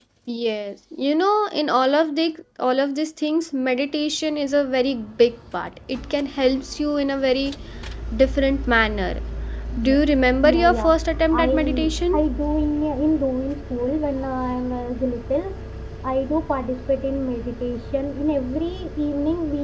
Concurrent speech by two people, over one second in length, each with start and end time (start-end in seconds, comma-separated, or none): none